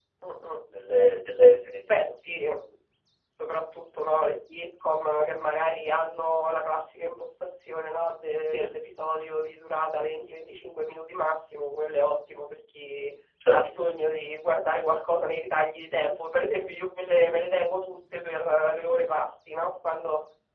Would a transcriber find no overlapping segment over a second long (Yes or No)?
Yes